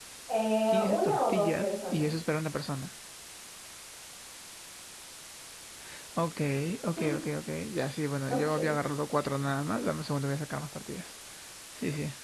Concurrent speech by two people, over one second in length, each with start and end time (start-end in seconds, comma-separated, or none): 0.7-2.1